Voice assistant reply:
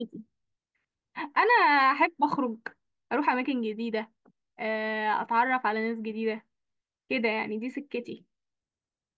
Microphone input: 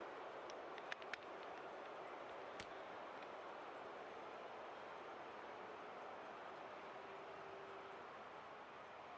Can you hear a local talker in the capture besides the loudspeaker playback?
No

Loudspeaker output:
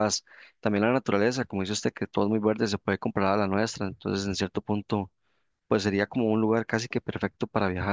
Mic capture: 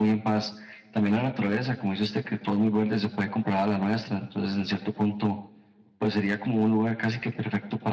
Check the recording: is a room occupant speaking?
No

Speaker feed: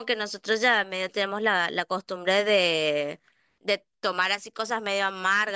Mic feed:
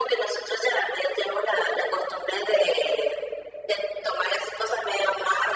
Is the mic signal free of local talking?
Yes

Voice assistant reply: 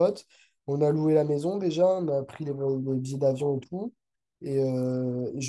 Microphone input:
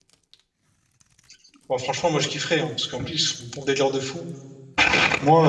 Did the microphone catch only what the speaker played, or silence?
No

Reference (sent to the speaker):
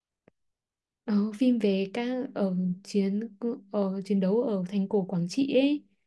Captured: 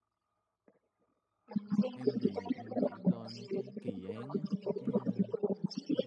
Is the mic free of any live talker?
No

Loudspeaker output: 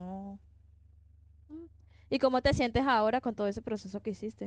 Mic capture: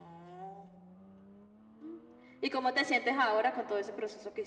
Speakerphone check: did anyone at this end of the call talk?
No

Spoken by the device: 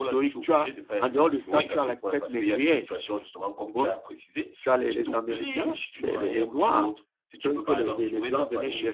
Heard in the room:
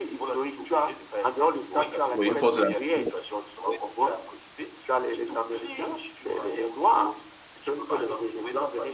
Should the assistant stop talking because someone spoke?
Yes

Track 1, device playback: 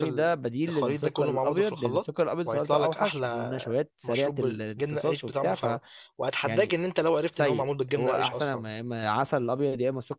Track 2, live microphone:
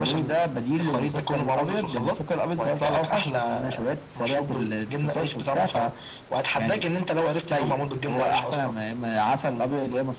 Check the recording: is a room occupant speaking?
No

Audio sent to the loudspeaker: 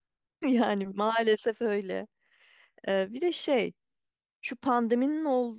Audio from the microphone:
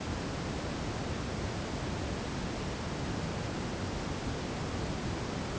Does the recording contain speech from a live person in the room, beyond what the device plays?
No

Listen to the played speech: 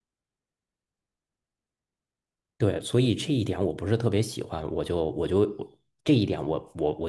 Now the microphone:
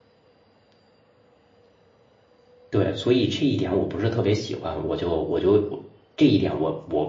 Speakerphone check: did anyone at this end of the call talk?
No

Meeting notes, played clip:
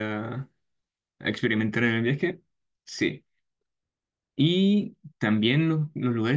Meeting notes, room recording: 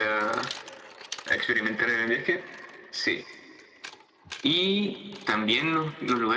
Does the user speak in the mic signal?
No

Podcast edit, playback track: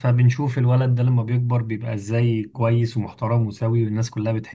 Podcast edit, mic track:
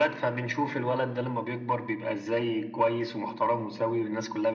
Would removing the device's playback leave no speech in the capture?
Yes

